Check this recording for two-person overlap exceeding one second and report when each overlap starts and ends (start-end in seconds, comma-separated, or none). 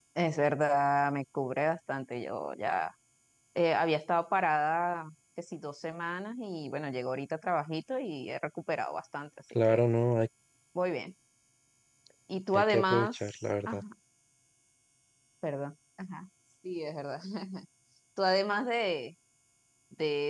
12.5-13.8